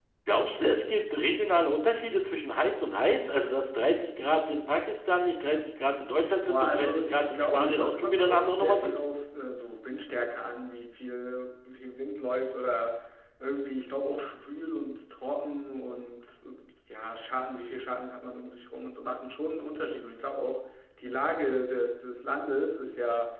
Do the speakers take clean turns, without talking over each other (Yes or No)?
No